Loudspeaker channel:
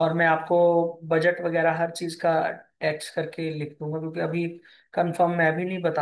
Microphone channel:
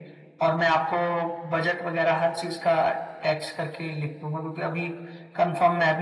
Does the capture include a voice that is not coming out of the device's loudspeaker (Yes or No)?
No